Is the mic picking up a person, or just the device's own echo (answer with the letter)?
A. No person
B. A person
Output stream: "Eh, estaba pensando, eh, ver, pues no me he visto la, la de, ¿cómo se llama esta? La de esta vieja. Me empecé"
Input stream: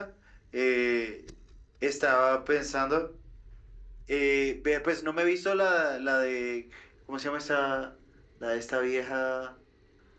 A